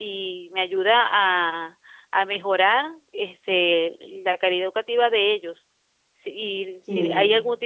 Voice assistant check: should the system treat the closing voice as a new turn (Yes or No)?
No